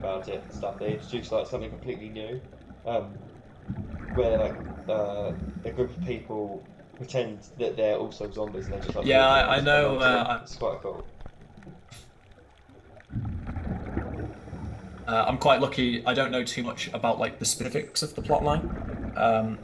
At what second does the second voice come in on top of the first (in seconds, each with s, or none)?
9.0 s